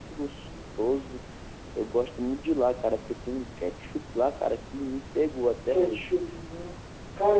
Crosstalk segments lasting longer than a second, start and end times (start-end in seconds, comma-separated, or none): none